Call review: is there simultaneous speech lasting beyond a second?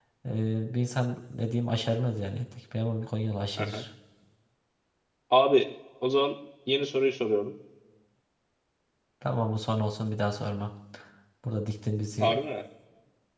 No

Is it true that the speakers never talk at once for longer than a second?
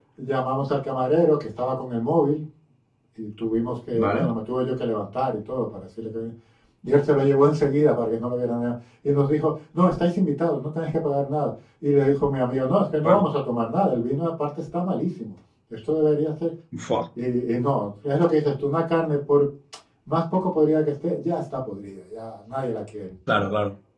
Yes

